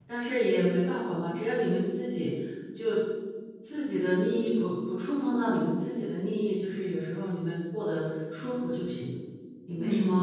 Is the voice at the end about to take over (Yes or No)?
Yes